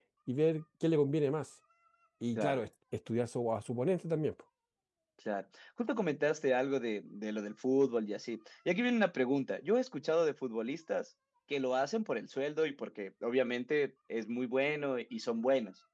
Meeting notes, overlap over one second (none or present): none